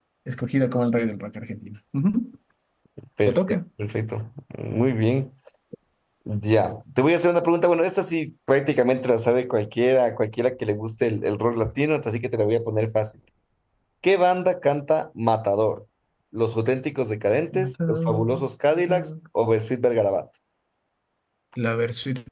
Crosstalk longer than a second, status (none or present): present